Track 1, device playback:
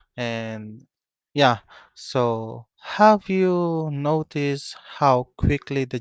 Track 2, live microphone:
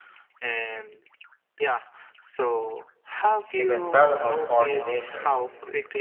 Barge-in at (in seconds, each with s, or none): 3.5 s